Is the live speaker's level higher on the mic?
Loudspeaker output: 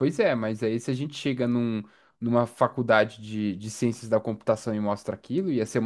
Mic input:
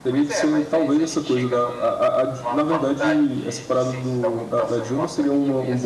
Yes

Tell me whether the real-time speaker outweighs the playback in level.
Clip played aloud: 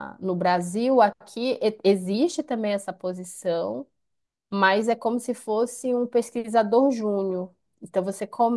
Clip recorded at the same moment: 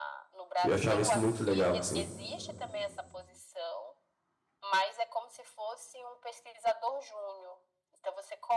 Yes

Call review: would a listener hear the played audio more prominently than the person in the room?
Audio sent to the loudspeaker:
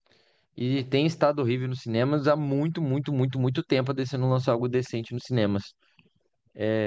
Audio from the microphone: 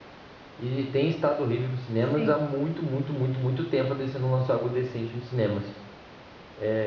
Yes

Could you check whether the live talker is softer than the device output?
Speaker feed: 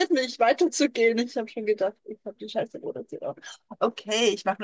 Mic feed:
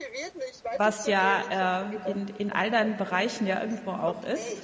No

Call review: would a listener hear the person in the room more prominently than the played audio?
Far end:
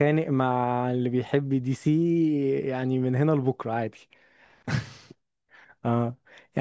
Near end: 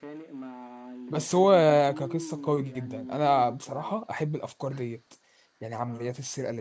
Yes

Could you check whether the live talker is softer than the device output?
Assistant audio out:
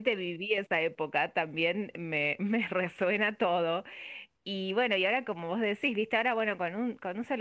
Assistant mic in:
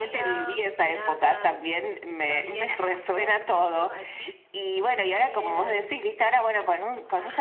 Yes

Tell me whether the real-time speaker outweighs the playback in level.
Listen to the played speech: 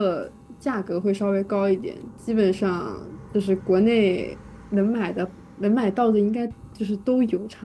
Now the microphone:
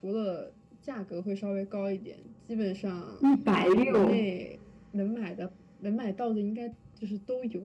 Yes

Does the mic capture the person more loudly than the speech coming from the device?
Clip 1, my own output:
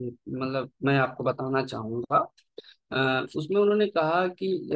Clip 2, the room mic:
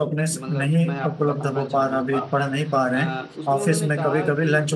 Yes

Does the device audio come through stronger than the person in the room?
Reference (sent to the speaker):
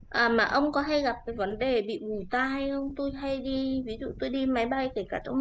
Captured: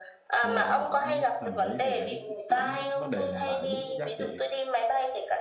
Yes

